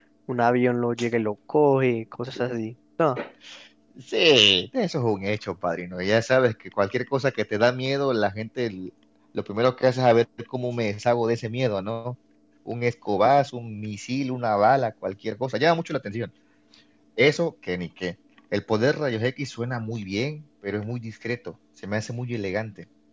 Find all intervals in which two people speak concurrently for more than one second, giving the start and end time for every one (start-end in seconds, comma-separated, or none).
none